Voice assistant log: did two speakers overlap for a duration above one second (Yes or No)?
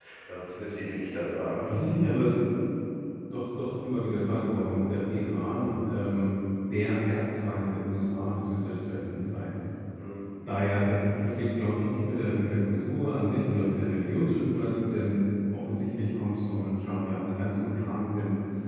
No